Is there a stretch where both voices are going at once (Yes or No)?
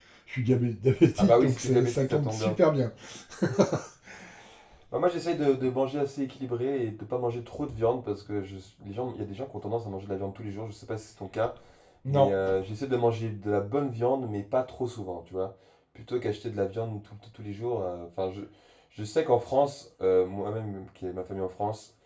Yes